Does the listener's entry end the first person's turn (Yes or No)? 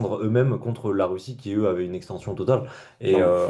No